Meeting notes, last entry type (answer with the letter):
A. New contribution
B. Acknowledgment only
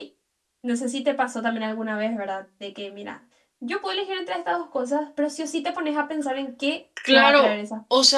A